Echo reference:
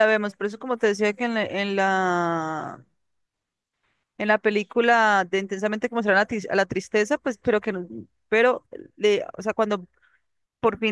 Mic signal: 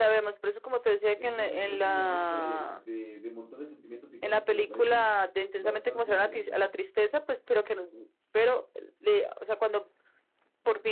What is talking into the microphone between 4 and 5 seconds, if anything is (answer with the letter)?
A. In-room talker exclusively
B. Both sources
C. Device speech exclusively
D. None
B